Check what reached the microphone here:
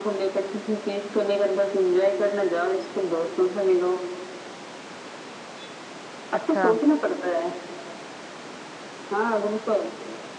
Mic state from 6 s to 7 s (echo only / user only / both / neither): both